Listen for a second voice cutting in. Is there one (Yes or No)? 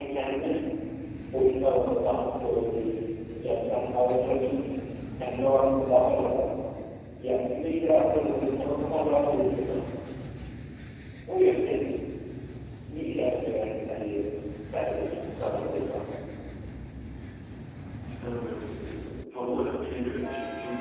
No